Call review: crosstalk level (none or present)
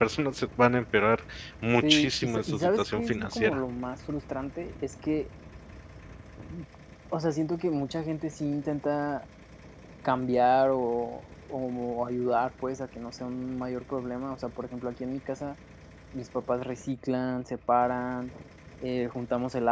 present